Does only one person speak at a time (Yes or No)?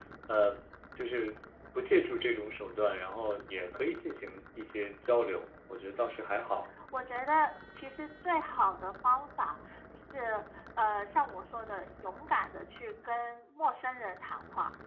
Yes